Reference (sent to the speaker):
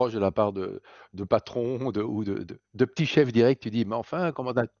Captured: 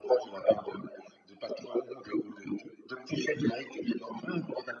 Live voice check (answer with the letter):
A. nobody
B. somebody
A